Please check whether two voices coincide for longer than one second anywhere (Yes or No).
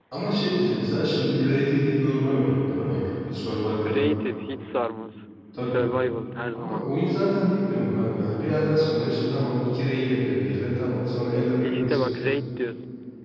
No